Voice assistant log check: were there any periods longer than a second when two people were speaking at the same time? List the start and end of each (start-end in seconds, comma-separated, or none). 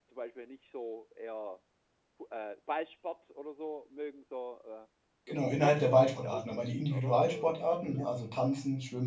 5.3-8.2